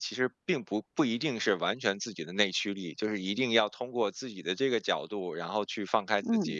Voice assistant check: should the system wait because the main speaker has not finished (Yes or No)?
Yes